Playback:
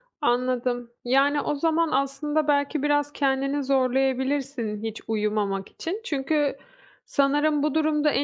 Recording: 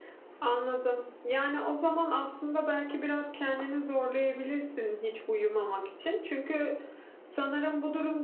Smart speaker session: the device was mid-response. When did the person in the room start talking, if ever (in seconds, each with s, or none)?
none